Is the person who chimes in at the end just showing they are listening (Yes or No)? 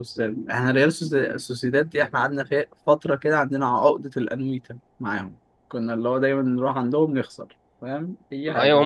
No